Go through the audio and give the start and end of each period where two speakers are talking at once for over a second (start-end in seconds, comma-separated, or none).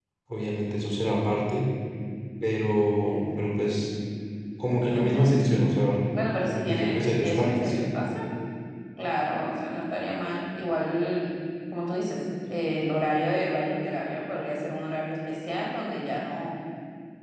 6.5-7.8